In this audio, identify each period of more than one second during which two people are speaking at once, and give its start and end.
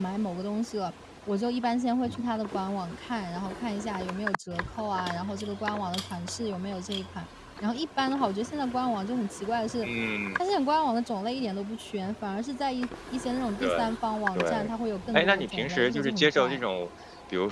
15.1-16.6

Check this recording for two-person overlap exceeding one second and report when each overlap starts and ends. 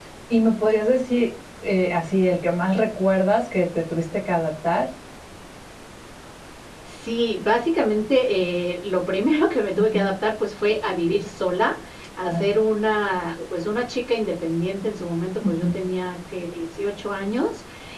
none

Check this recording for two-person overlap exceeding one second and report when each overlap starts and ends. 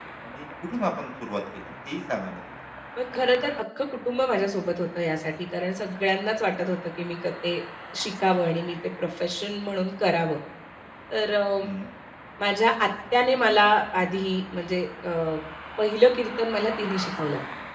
none

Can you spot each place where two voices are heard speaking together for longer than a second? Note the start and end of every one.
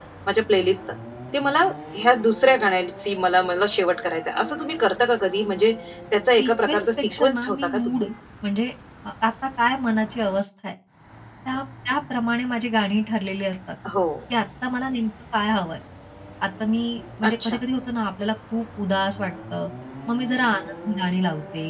6.4-8.0

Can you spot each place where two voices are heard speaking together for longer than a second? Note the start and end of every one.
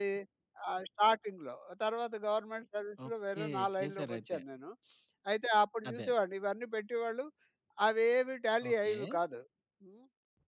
3.1-4.4

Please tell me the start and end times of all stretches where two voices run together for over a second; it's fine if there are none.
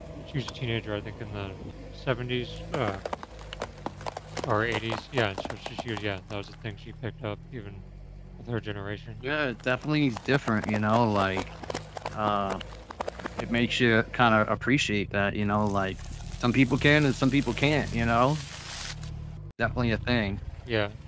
none

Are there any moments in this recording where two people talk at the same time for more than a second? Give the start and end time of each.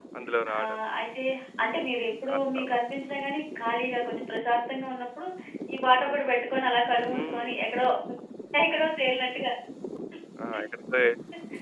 none

